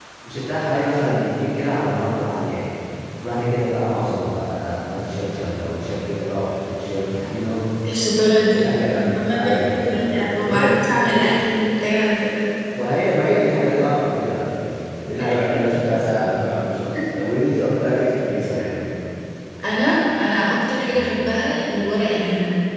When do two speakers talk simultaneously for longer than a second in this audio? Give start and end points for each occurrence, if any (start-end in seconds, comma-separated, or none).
9.2-10.9